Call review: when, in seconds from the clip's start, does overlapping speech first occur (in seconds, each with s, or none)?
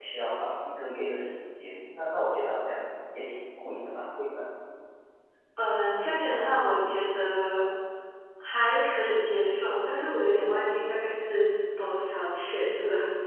none